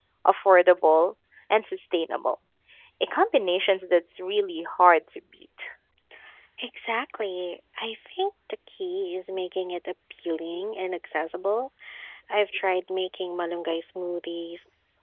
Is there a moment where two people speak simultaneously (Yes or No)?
No